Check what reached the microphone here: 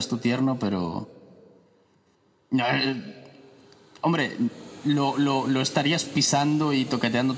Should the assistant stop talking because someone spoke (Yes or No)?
No